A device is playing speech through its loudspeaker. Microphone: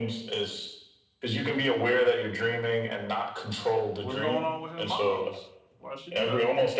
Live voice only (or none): What's going on with his mom's? Why'd she do that?